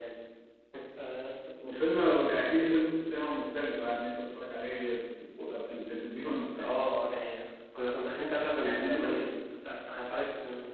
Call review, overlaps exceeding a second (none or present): none